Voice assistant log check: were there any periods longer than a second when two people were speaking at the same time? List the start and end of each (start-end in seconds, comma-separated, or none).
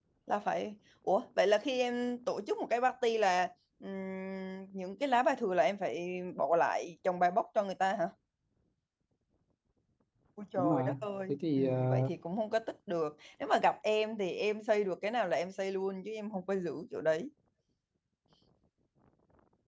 10.6-12.1